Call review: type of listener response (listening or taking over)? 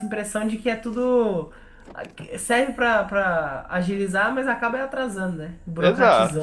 taking over